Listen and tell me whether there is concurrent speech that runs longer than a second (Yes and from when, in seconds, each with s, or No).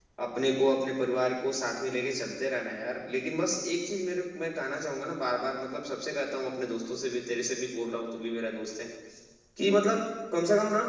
No